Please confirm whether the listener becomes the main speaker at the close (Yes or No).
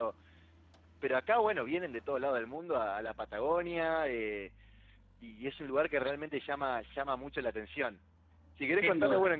No